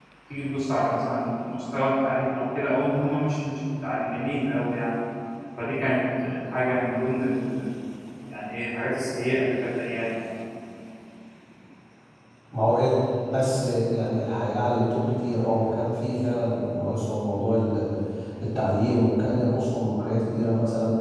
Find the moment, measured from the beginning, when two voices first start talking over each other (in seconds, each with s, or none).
none